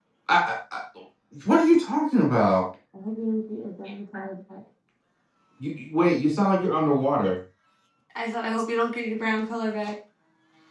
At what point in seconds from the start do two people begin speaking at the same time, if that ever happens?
none

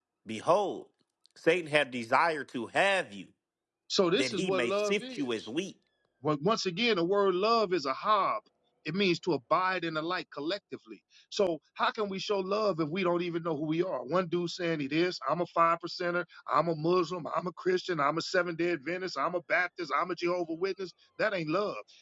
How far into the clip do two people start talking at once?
4.2 s

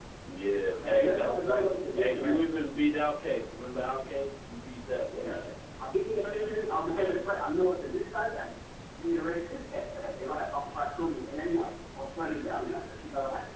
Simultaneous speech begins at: 0.8 s

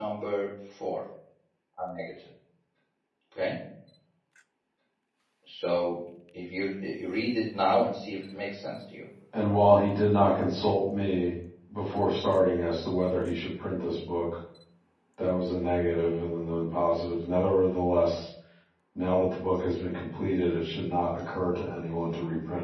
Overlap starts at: none

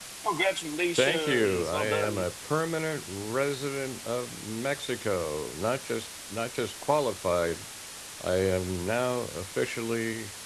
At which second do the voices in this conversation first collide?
1.0 s

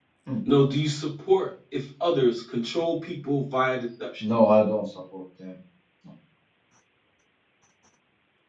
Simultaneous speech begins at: none

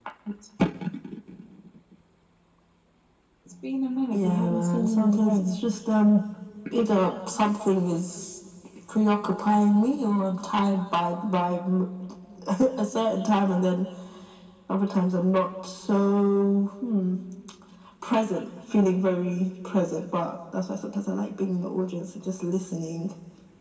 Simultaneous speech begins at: 4.1 s

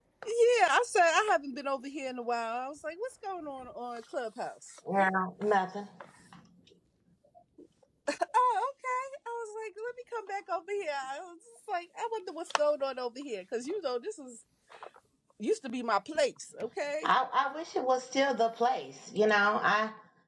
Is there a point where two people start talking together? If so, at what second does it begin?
none

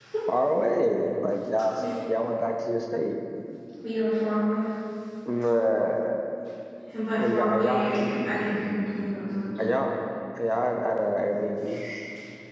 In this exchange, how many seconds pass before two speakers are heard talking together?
7.2 s

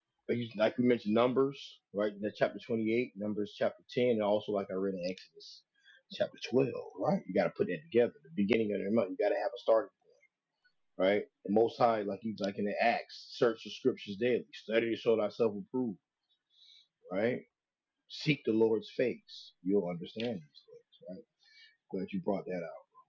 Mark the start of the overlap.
none

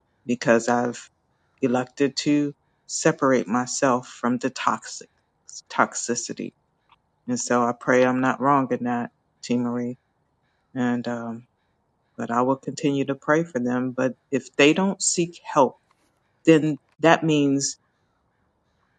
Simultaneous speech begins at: none

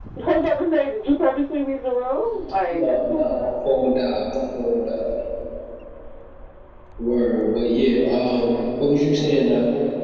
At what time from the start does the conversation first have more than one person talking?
2.2 s

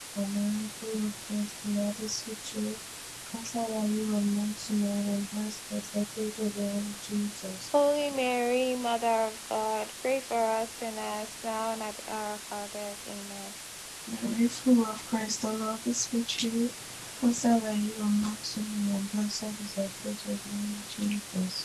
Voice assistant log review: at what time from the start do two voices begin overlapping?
none

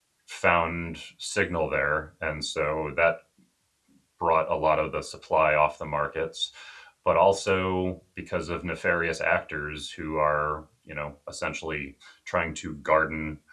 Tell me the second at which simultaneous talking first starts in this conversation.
none

